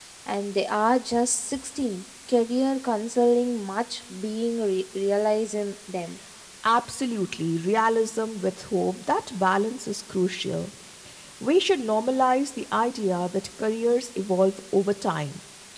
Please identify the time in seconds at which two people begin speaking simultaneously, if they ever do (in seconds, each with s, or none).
none